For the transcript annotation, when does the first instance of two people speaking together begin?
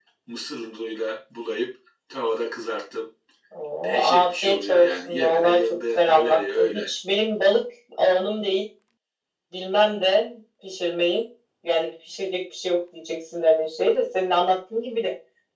3.8 s

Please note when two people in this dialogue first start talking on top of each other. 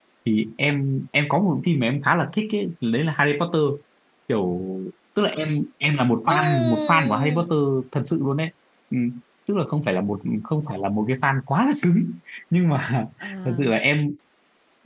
6.3 s

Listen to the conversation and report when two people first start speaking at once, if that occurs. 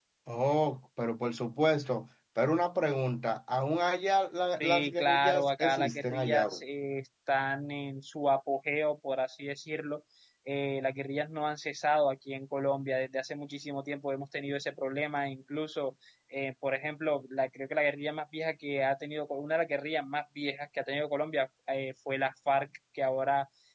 4.6 s

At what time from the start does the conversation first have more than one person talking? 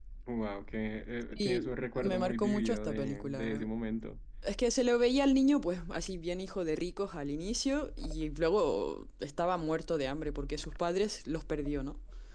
1.3 s

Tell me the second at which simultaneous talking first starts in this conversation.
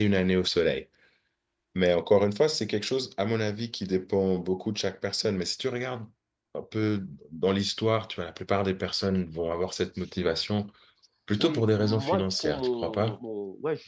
11.4 s

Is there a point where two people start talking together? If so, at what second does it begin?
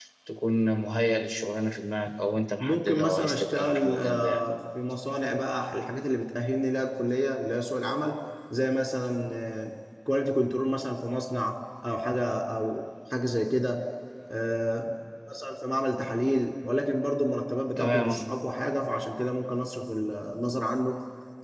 2.6 s

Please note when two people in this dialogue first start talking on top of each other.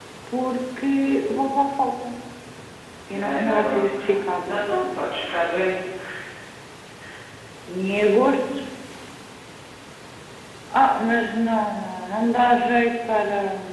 3.1 s

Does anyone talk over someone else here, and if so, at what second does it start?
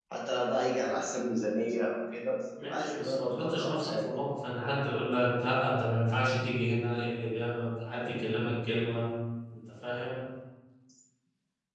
2.6 s

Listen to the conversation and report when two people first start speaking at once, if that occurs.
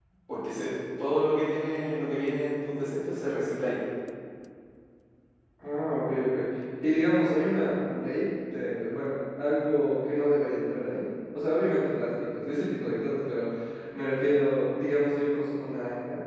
none

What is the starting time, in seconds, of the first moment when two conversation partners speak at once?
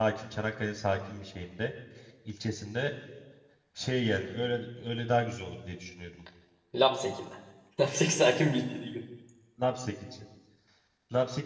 none

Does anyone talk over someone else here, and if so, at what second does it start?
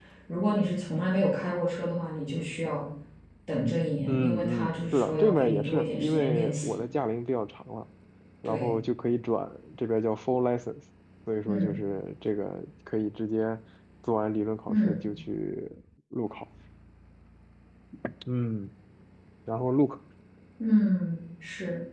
4.1 s

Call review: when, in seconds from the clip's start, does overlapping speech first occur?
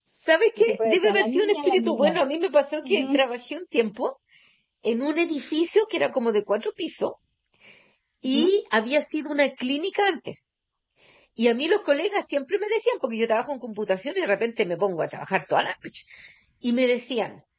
0.6 s

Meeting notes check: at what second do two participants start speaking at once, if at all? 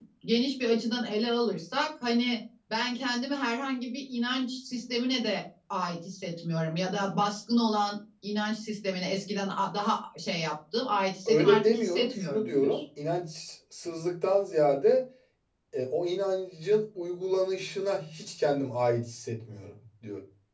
11.2 s

